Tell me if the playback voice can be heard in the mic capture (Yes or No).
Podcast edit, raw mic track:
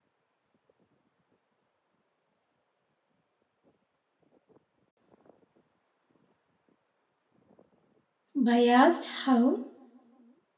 No